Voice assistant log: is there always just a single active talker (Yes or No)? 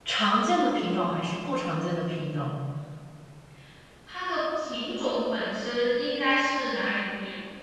Yes